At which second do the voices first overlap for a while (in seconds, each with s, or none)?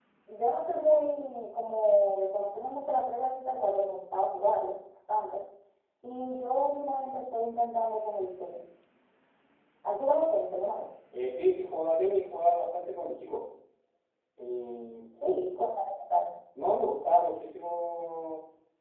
none